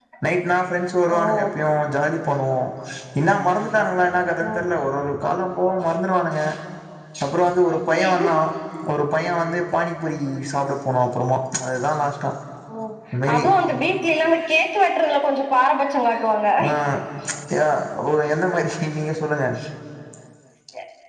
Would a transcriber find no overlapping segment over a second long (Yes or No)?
Yes